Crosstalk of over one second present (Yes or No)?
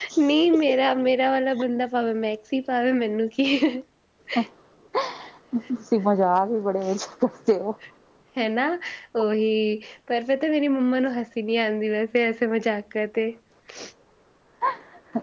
No